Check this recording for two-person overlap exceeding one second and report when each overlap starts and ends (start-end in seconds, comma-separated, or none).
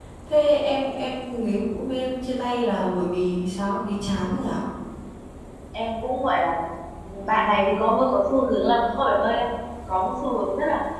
none